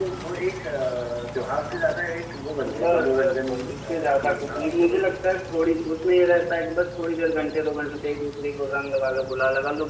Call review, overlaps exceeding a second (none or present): present